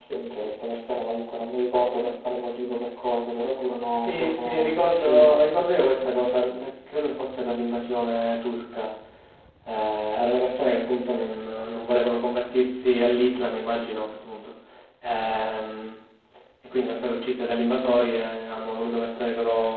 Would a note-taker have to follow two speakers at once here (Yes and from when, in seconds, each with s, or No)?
Yes, from 3.9 s